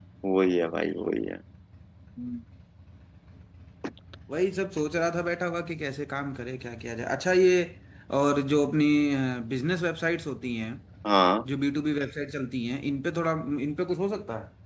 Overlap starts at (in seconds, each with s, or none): none